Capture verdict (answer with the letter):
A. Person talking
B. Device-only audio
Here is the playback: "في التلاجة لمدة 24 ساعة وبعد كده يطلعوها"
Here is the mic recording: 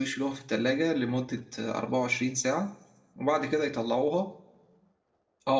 B